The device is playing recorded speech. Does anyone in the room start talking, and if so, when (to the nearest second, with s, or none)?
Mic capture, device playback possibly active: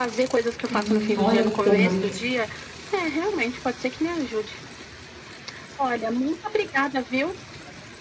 1 s